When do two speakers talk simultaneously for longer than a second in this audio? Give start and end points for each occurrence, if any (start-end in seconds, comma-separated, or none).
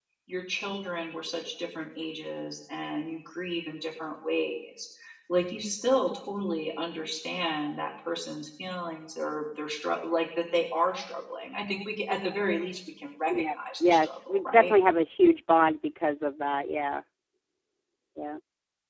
13.3-14.7